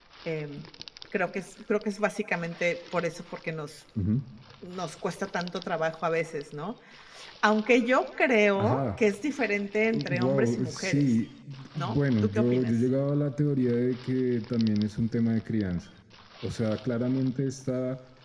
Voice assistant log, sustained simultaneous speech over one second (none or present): present